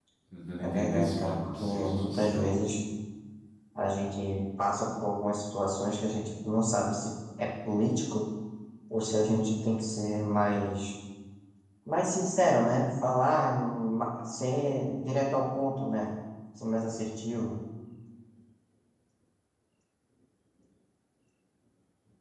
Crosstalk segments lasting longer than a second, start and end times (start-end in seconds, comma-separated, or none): 0.6-2.7